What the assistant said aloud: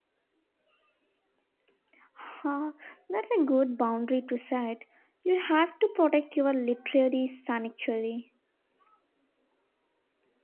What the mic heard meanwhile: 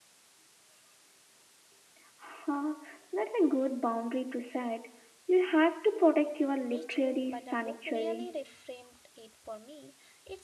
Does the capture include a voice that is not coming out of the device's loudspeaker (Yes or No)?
Yes